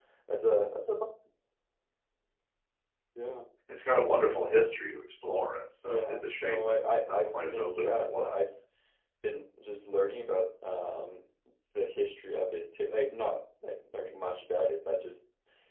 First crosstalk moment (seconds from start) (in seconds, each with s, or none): 5.9 s